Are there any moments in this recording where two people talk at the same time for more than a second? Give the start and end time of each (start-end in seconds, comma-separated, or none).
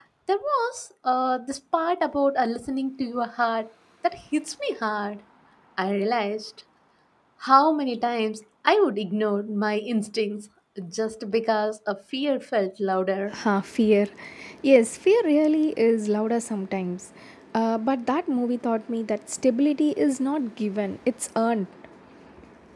none